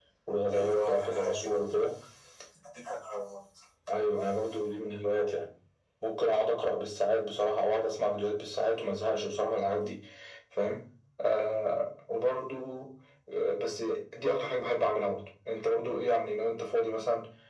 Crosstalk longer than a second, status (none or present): present